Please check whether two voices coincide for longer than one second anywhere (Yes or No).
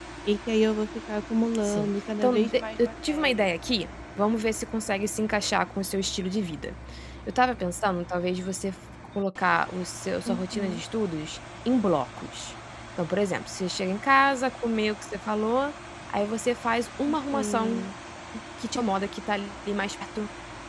Yes